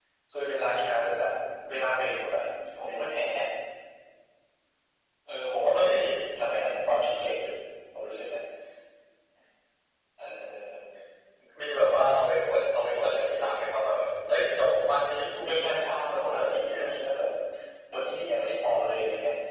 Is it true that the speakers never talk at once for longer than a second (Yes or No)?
No